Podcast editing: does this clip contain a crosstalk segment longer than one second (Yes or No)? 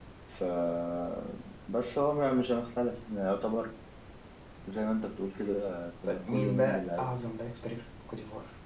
Yes